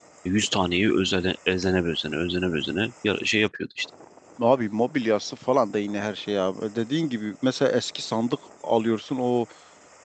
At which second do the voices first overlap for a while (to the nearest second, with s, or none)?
none